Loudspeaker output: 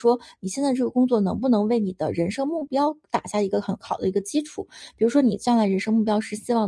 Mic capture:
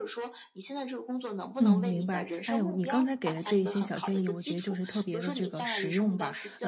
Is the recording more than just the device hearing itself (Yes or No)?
Yes